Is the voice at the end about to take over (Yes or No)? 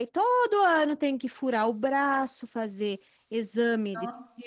No